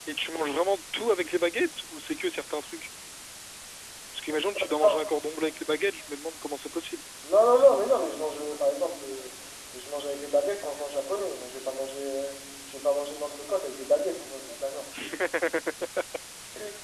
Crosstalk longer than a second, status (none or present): none